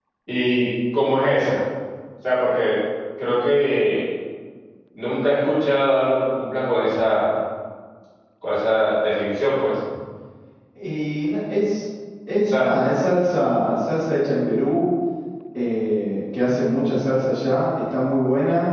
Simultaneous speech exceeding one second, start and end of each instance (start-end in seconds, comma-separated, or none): none